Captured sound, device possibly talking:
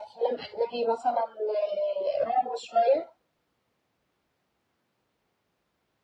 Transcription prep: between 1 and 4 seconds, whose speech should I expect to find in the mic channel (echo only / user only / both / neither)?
echo only